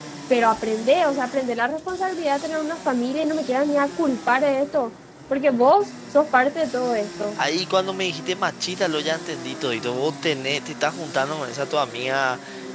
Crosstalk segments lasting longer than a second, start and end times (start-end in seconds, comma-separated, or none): none